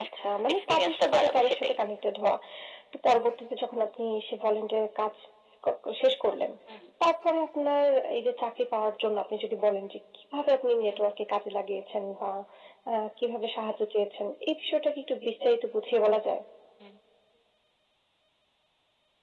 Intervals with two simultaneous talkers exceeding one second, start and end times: 0.5-1.7

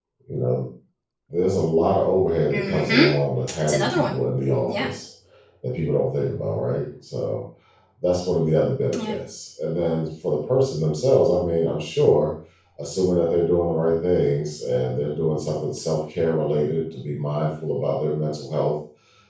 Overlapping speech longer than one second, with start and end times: none

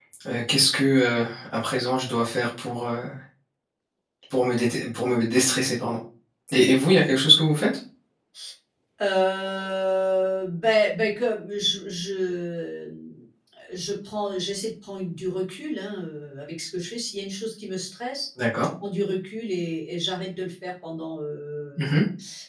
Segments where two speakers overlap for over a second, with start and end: none

